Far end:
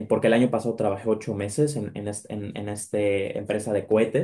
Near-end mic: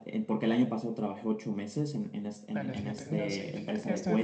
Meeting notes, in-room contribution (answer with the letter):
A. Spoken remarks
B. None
A